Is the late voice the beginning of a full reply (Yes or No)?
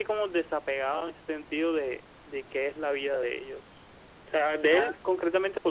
No